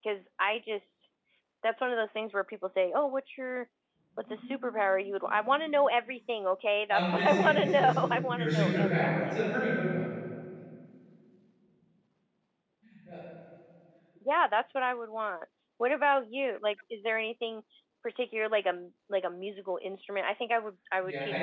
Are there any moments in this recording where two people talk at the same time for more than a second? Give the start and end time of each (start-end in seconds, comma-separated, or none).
6.9-9.3